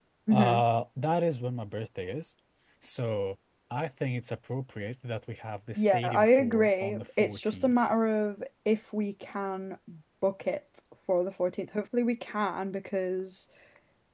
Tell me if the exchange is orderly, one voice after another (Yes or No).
No